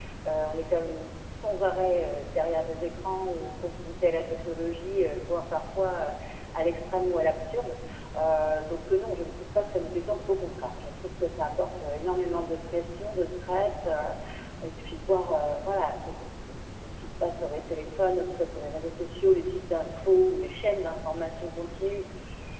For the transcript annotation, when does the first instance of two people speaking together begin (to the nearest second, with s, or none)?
none